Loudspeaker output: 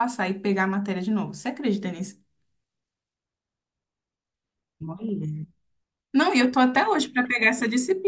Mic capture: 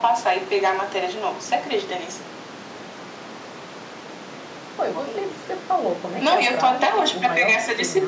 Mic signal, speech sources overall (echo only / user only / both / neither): both